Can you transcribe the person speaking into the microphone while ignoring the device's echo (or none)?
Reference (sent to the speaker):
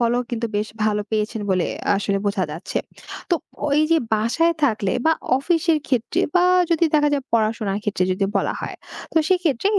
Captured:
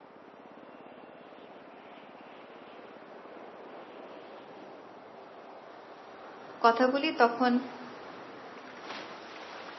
কথা বলি তখন